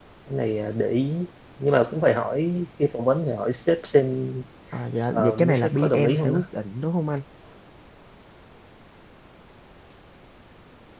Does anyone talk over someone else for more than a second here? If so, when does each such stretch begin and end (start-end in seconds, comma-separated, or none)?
5.1-6.4